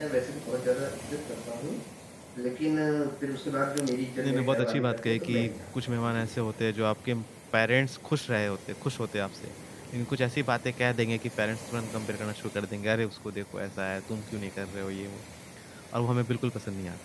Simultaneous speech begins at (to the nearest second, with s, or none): 4 s